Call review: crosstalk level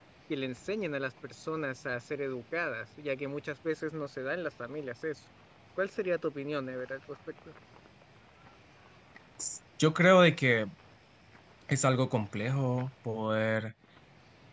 none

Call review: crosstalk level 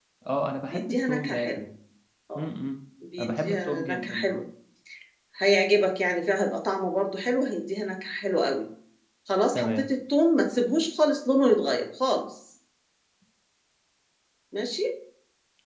present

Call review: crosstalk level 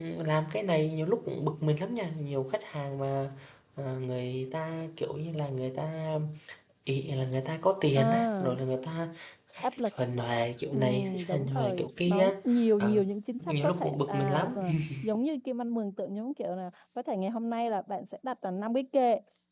present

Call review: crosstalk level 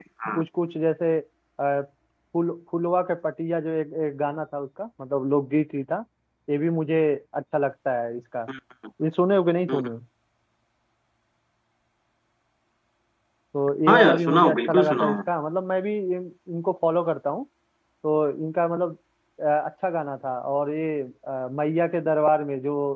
present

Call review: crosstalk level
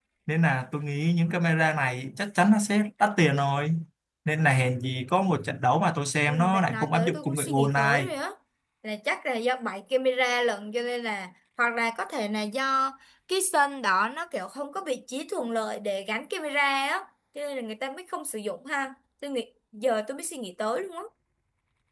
present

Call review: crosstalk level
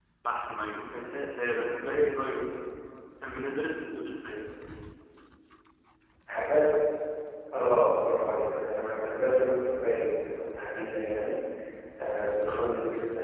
none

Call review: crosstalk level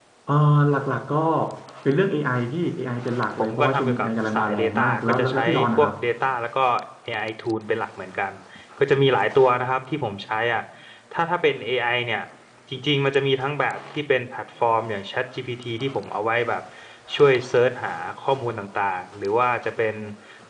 present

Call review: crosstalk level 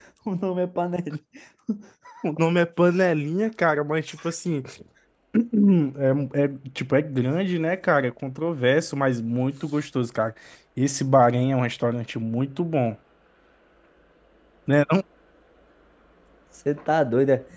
none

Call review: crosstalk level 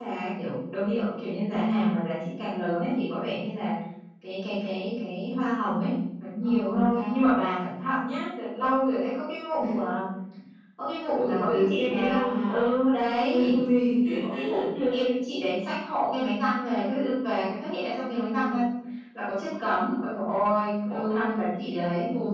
present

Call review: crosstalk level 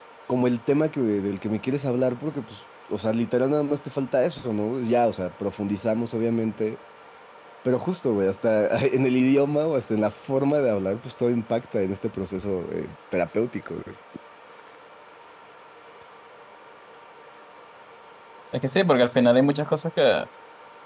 none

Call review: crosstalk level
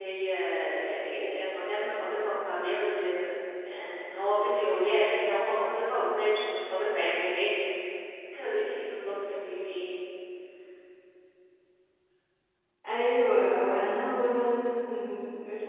none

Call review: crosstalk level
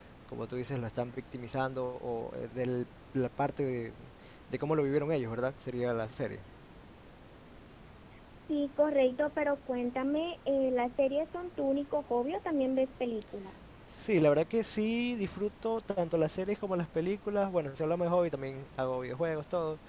none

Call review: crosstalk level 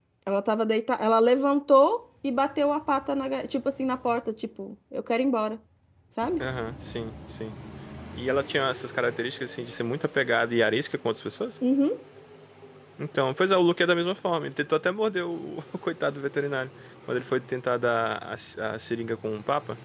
none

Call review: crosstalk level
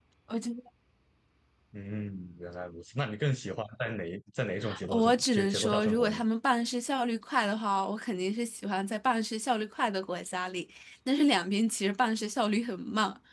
present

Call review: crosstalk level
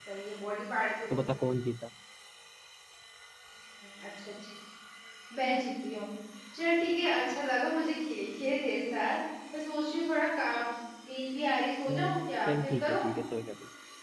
present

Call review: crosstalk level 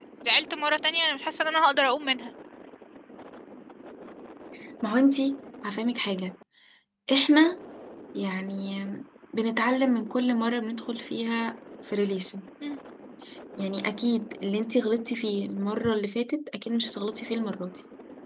none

